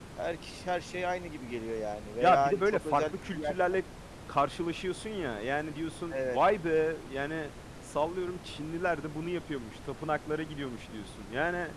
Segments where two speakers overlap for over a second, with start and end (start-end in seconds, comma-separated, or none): 2.2-3.5